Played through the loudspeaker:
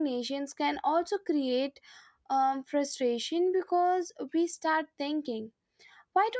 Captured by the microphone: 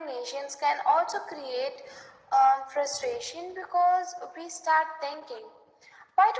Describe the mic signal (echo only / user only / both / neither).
echo only